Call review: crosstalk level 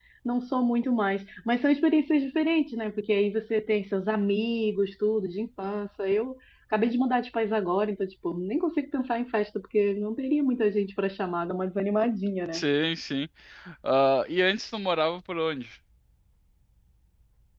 none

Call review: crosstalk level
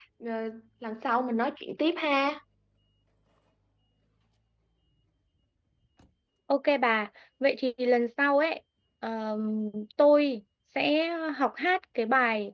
none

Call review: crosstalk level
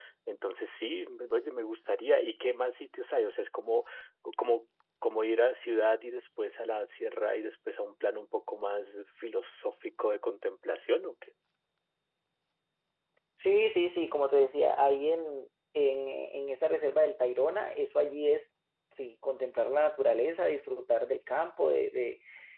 none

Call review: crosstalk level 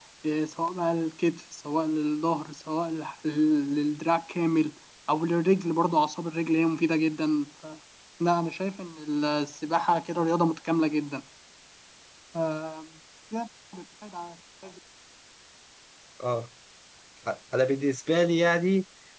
none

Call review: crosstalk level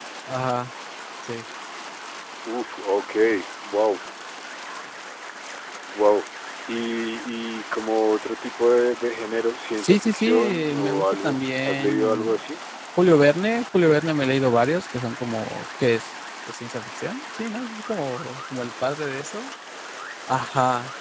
present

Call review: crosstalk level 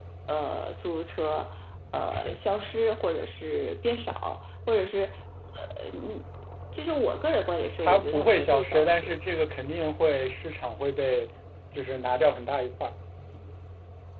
present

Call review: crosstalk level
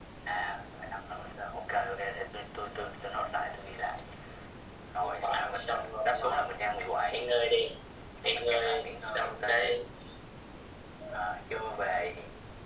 present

